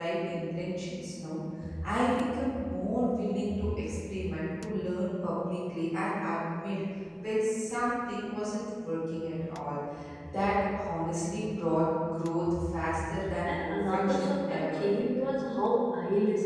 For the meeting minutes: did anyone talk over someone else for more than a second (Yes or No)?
Yes